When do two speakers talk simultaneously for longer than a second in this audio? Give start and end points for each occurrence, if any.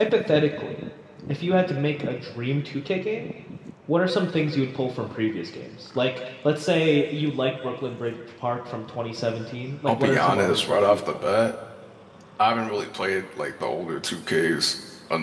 9.8-11.3

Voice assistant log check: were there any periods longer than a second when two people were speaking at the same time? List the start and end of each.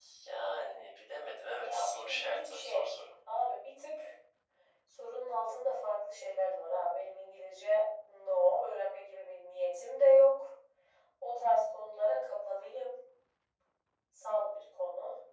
1.6-2.9

